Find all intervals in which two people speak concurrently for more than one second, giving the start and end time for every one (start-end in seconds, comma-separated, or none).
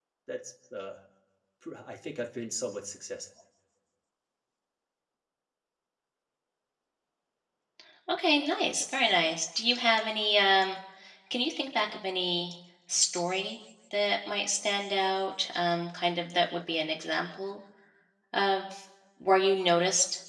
none